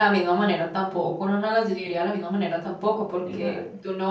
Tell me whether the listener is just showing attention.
Yes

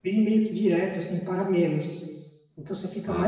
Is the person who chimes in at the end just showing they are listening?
No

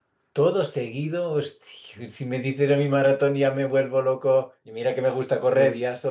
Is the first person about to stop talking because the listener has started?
No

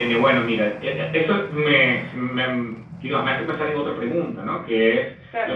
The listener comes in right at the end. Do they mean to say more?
No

